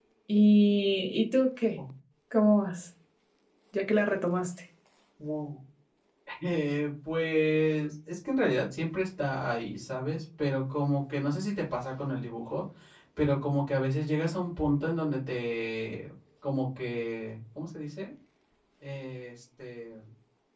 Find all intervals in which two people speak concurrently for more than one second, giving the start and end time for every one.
none

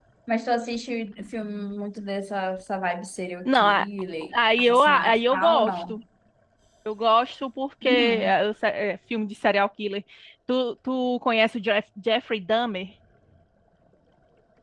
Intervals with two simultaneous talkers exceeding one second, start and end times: 4.6-6.0

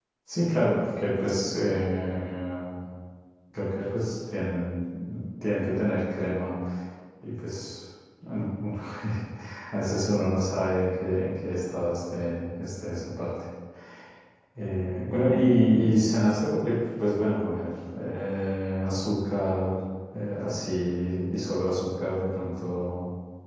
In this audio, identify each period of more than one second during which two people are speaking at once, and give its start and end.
none

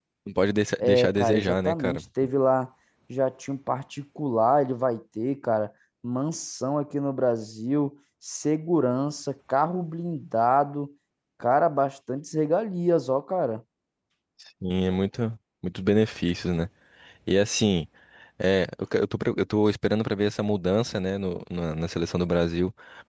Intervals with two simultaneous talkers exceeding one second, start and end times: 0.8-2.0

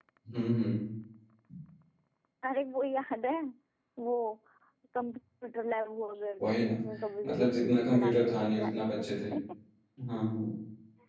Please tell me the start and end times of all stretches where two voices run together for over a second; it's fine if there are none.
7.2-9.2

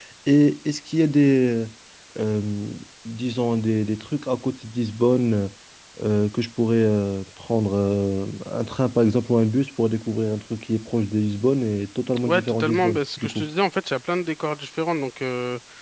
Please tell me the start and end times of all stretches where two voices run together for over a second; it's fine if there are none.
12.2-13.5

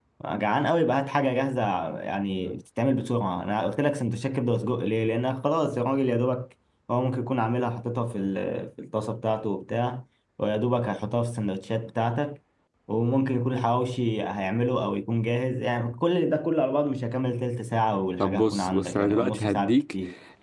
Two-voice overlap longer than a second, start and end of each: 18.2-19.8

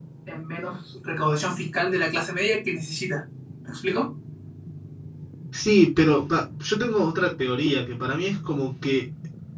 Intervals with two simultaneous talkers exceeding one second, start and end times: none

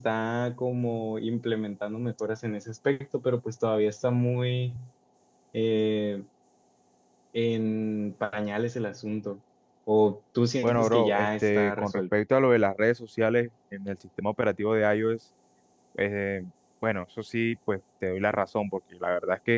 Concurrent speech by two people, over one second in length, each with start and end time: 10.6-12.0

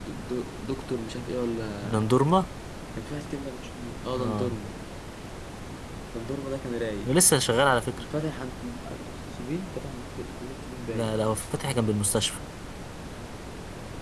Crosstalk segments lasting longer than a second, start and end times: none

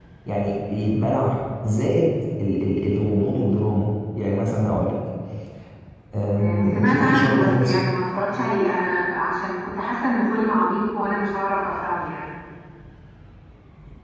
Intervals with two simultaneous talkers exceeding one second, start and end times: 6.4-7.8

